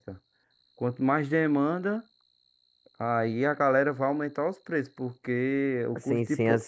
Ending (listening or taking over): taking over